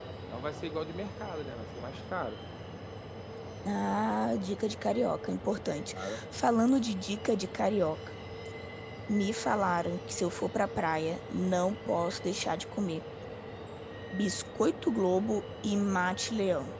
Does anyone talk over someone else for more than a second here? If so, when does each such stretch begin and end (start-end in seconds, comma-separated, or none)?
none